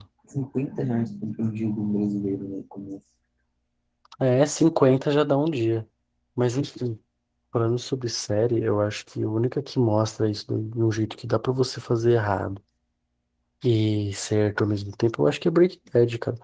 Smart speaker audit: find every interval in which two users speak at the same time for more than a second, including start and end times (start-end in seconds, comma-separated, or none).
none